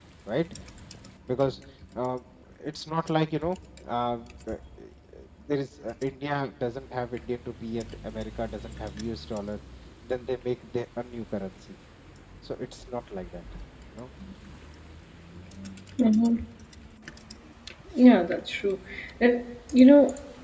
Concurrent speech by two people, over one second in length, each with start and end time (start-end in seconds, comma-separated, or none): none